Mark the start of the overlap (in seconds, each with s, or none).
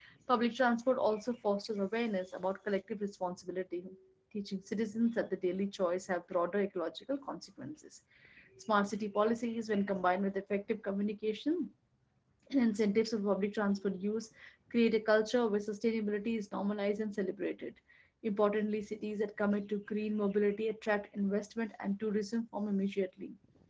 none